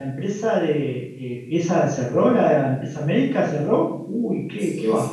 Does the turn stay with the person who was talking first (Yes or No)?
No